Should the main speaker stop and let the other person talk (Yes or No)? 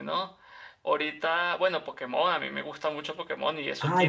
Yes